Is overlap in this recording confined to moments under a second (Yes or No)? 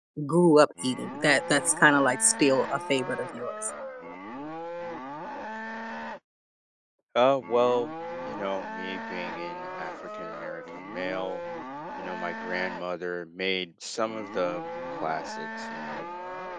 Yes